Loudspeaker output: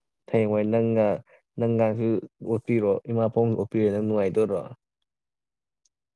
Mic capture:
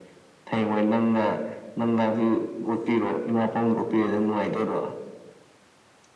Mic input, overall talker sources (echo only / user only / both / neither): echo only